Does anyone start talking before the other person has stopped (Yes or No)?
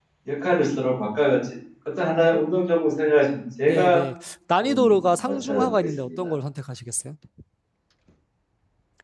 Yes